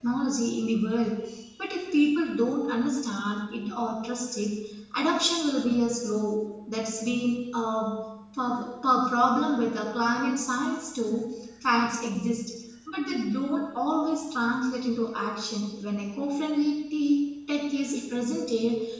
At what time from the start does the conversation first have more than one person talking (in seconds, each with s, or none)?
none